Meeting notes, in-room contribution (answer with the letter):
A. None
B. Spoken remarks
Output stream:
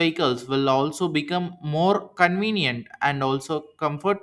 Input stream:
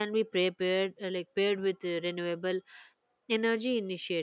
B